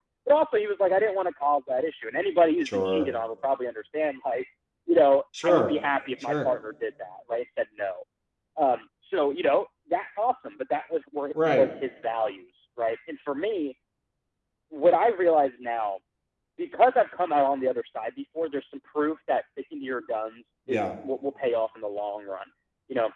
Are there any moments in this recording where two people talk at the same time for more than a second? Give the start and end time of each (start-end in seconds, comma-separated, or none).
none